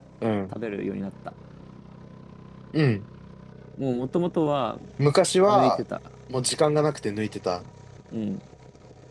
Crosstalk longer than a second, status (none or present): none